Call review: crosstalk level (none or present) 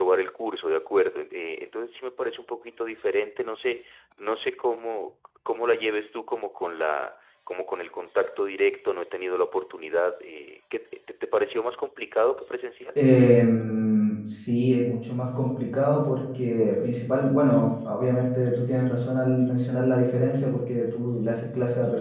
none